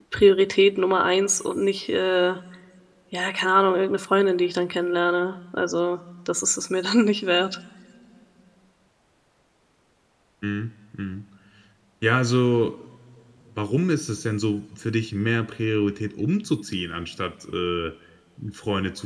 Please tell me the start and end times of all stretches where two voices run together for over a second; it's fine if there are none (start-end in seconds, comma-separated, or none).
none